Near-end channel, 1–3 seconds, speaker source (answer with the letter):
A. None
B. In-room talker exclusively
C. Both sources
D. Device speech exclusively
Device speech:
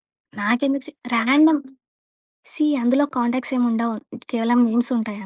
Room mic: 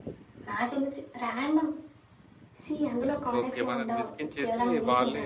D